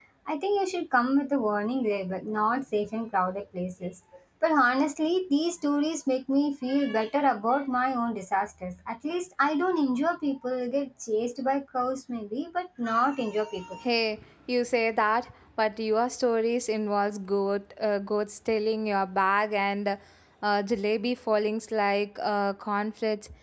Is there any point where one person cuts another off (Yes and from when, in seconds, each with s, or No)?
No